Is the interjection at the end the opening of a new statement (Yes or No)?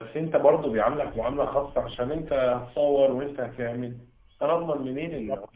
Yes